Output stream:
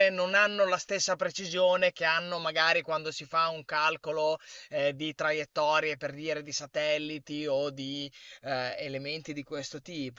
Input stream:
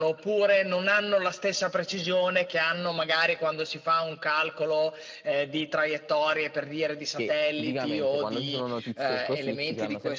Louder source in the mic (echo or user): echo